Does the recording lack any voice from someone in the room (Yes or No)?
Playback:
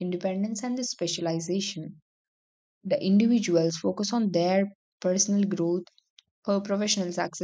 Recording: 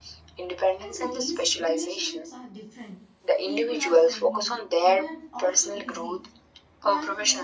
No